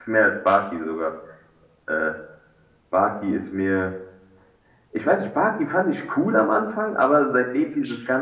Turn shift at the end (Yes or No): No